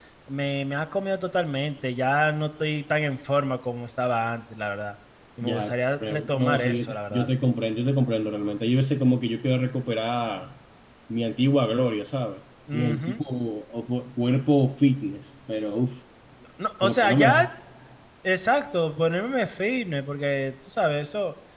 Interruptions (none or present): present